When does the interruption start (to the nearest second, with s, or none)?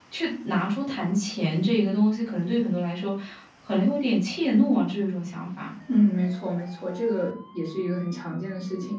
none